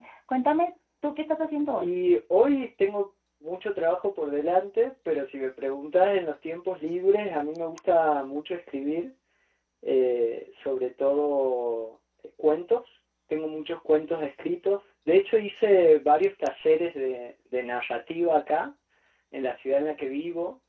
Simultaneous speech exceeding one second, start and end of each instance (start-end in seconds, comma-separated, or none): none